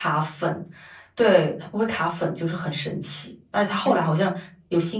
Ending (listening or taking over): listening